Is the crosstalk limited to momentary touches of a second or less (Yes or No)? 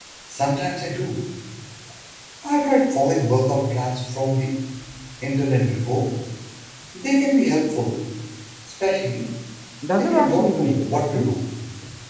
No